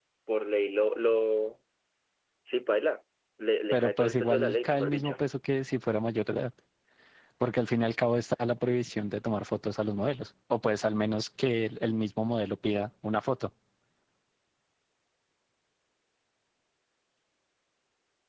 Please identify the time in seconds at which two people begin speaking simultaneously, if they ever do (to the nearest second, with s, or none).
4 s